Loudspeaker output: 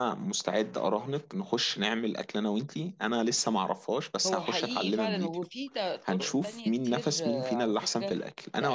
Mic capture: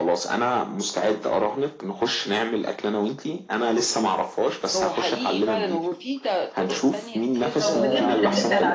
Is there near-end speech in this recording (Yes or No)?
Yes